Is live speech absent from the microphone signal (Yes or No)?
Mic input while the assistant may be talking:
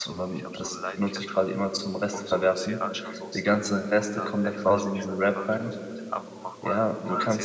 No